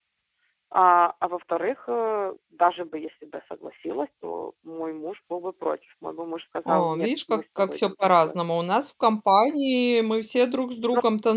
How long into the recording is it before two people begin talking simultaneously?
6.7 s

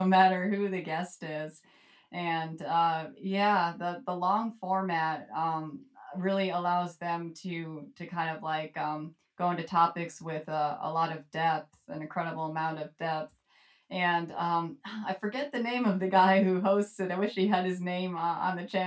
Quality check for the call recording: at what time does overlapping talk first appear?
none

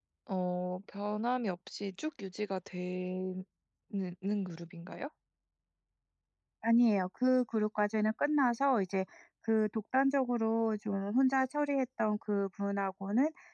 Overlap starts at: none

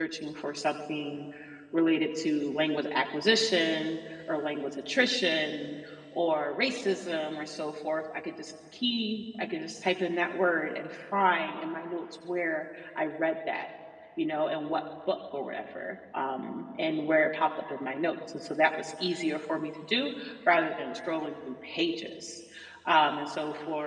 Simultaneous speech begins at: none

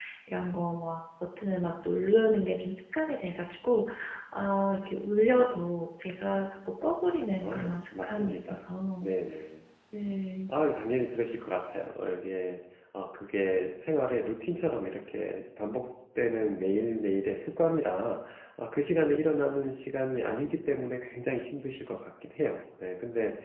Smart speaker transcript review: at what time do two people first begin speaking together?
7.3 s

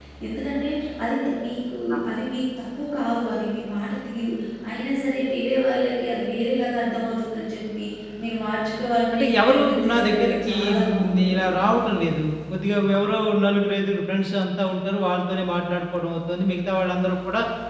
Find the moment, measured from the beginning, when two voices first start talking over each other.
9.1 s

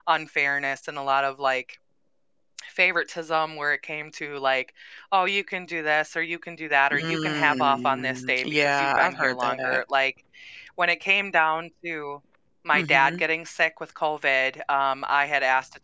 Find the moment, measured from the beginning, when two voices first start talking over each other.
6.9 s

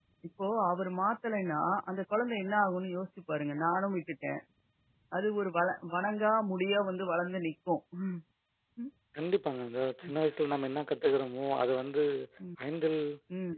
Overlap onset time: none

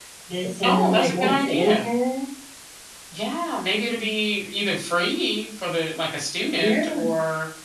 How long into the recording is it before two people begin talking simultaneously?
0.6 s

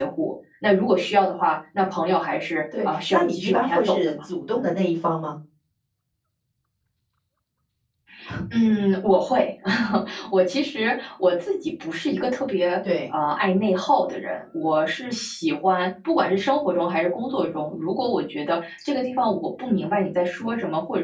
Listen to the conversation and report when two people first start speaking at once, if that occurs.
2.7 s

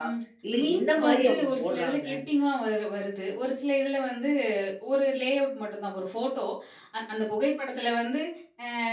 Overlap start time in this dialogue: 0.6 s

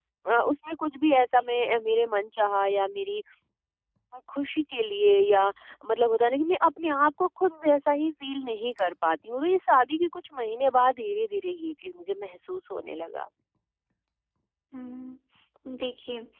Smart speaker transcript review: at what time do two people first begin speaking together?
none

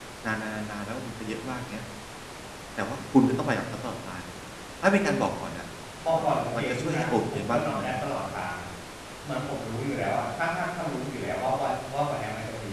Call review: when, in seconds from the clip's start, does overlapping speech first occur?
6.2 s

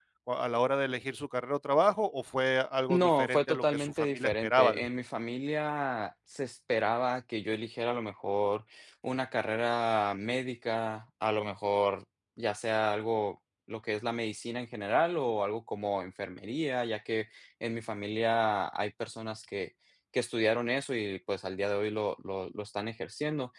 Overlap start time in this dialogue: 2.9 s

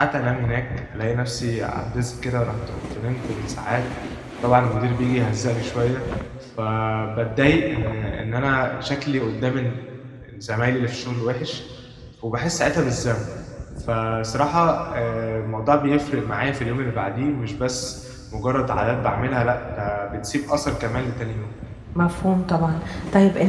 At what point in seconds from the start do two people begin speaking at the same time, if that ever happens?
none

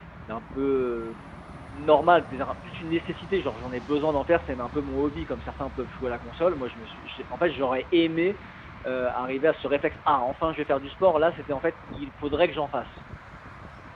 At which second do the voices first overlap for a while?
none

